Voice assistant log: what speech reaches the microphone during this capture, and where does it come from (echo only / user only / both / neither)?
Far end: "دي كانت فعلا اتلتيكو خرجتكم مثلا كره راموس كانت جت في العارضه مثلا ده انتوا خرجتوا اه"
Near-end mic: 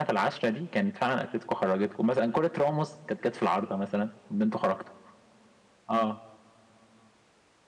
echo only